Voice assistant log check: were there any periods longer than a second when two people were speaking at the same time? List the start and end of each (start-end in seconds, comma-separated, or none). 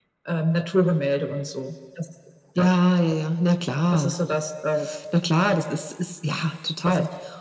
none